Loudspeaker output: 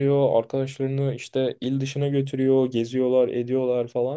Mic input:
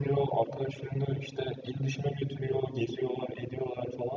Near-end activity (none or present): none